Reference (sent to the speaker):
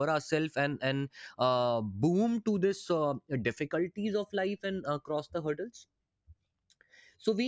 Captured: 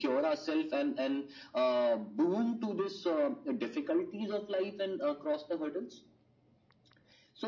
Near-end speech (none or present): none